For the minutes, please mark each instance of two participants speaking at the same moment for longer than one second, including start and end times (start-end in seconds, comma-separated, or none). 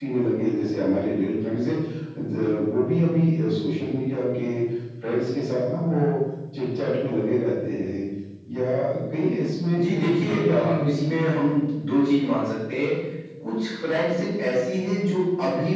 9.8-11.6